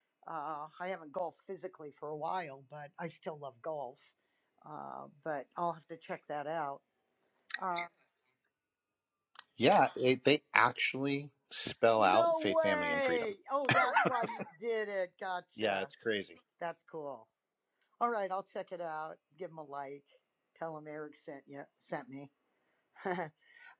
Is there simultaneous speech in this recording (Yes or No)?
Yes